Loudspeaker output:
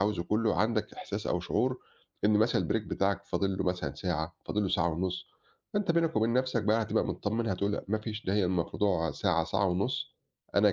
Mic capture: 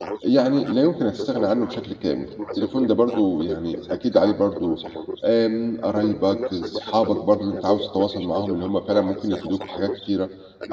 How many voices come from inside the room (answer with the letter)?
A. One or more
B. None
A